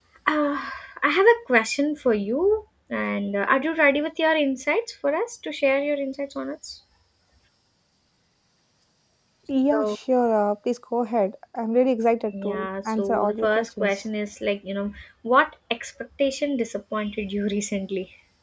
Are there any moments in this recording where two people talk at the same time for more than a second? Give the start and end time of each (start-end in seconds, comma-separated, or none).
12.4-14.0